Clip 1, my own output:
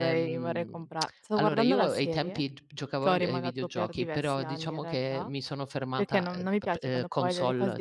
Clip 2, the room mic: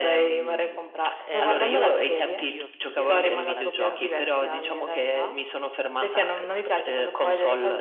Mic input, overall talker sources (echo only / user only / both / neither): both